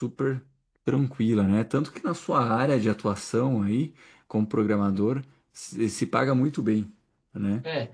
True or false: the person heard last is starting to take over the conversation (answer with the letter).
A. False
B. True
B